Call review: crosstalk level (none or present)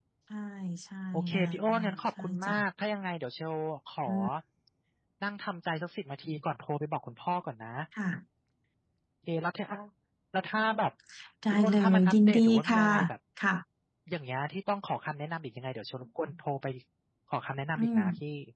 present